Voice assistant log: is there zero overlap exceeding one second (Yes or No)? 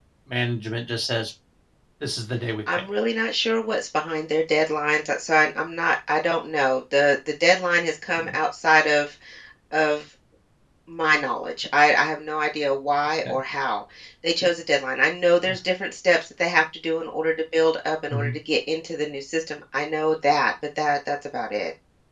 Yes